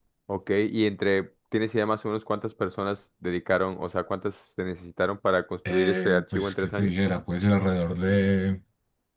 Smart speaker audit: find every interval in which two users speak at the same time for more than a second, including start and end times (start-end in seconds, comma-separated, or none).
5.7-6.9